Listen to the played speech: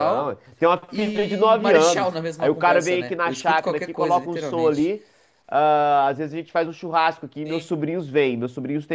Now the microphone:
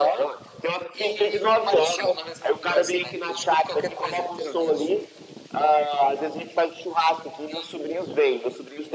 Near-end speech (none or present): none